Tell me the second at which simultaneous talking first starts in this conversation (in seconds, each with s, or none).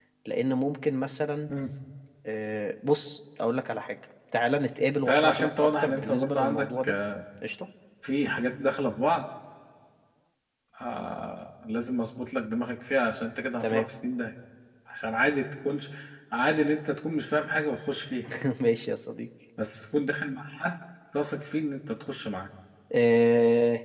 5.1 s